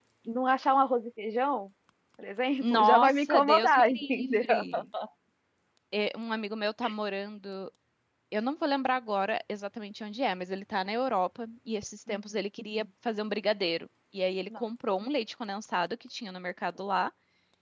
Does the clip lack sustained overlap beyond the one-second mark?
No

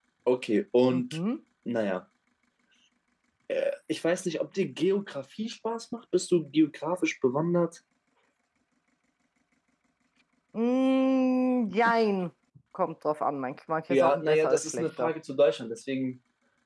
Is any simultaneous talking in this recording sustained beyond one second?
Yes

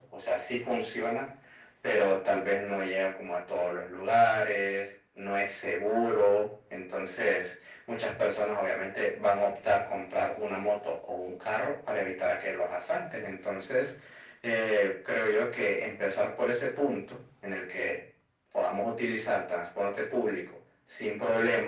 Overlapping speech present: No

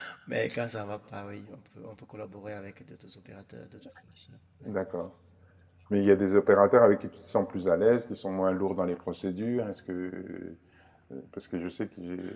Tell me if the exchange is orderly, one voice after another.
Yes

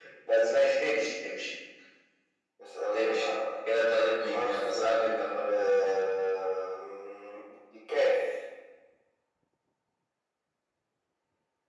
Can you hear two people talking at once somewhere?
Yes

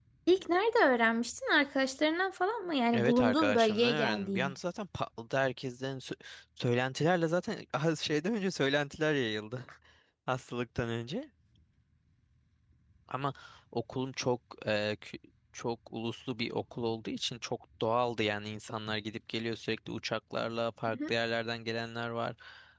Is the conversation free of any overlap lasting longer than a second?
No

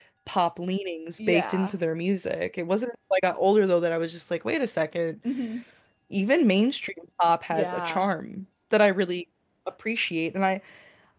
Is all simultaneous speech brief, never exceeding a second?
Yes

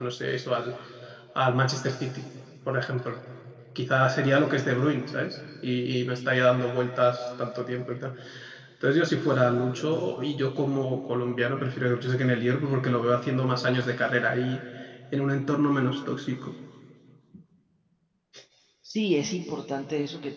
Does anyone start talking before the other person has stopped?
No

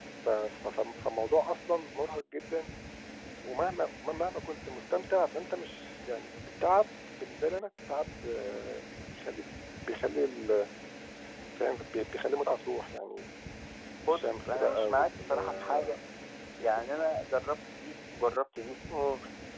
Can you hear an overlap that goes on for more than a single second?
Yes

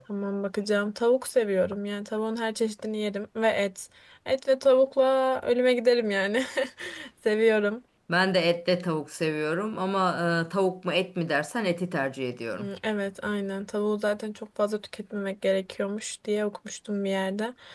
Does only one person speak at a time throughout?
Yes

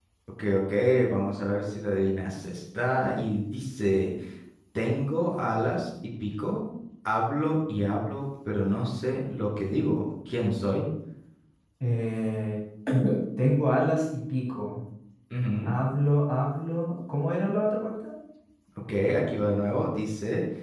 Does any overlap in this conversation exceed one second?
No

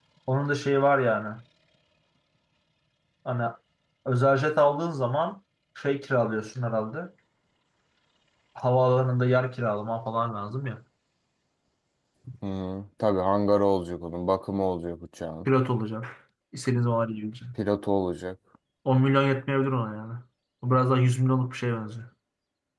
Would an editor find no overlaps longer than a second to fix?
Yes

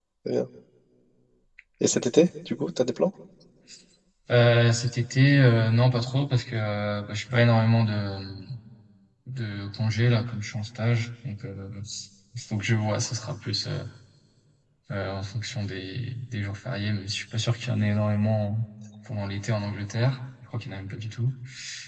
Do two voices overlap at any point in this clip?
No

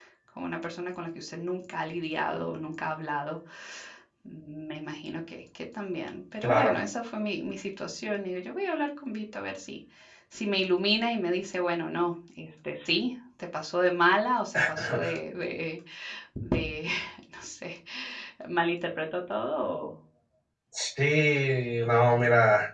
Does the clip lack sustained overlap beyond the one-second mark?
Yes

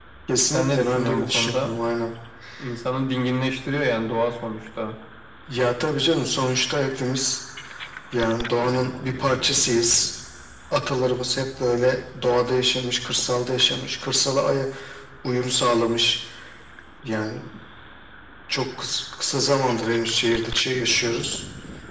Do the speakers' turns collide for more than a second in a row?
Yes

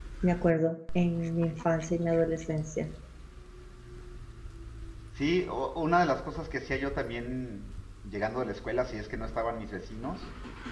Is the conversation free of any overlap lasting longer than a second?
Yes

